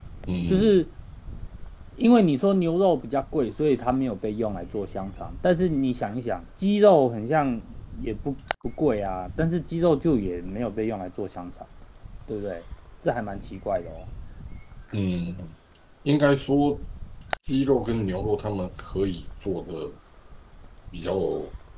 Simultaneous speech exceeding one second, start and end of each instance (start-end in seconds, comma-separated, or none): none